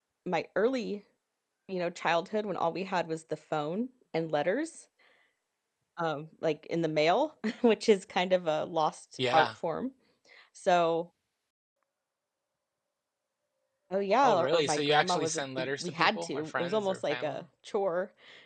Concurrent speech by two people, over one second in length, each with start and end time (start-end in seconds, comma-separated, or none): 14.2-17.4